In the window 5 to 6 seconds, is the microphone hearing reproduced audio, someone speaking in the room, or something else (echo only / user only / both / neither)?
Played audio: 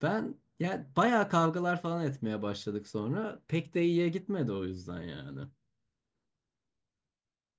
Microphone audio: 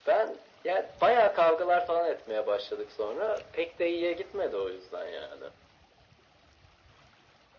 echo only